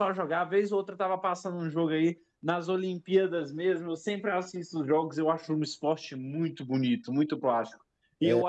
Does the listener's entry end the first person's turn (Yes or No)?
No